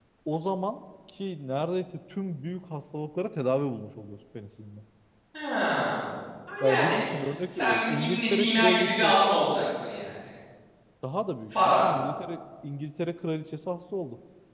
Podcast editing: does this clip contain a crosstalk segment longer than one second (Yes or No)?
Yes